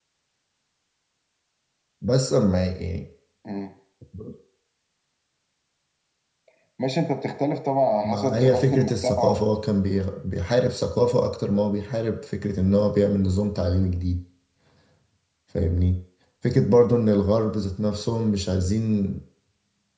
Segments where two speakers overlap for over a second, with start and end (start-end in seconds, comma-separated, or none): 8.0-9.4